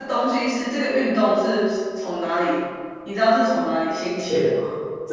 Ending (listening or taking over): taking over